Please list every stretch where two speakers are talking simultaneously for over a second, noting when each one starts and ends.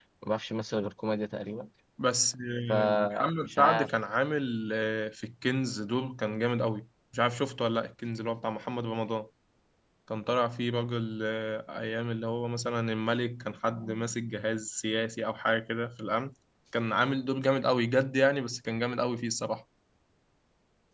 2.7-3.9

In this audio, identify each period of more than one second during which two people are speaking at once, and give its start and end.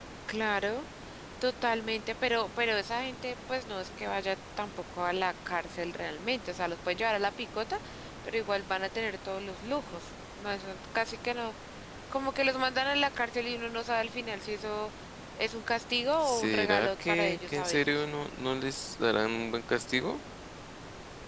16.2-18.0

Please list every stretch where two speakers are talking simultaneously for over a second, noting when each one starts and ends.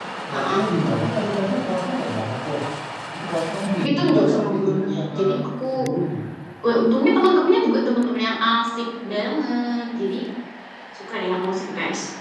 3.8-5.2

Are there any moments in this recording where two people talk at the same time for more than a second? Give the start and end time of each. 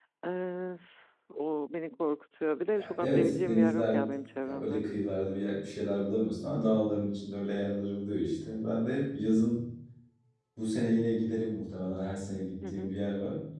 2.8-4.0

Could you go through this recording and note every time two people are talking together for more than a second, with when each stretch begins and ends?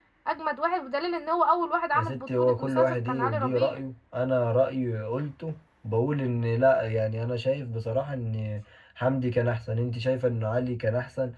1.9-3.8

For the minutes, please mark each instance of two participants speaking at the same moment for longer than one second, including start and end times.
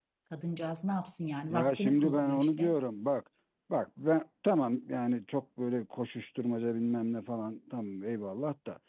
1.5-2.7

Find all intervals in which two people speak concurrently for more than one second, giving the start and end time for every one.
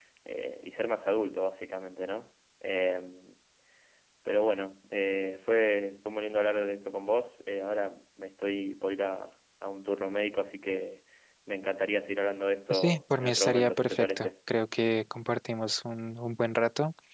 12.7-14.3

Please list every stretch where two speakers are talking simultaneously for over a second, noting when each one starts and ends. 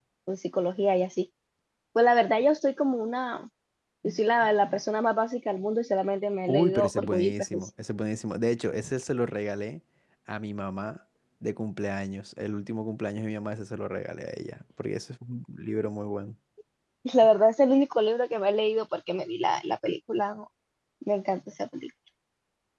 6.5-7.7

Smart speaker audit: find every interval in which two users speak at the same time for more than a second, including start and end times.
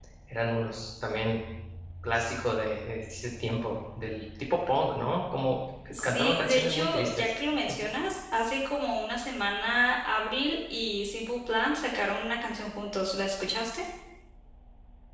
5.9-7.3

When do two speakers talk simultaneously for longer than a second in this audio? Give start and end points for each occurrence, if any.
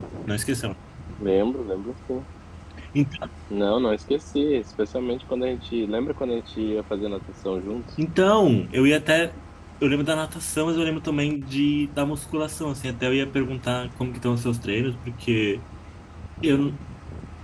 none

